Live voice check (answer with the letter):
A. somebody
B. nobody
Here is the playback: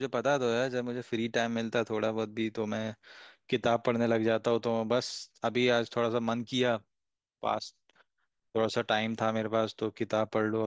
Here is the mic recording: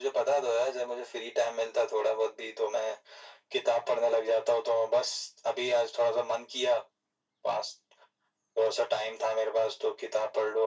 B